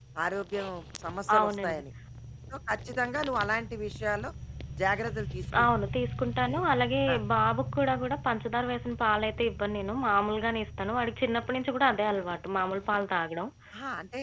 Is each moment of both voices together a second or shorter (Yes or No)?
Yes